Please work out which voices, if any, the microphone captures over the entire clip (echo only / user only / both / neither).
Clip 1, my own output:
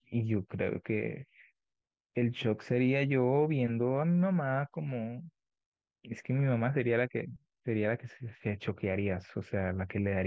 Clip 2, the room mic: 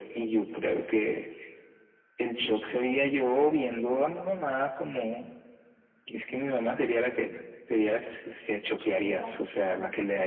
both